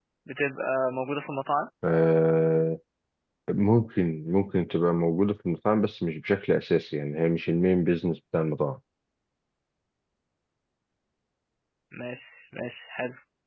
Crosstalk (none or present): none